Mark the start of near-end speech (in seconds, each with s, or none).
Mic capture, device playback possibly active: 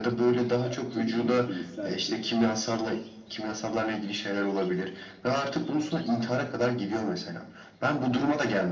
0.6 s